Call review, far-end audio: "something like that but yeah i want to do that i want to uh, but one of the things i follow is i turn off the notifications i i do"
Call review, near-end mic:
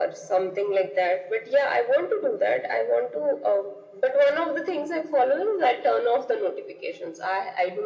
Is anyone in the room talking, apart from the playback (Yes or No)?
No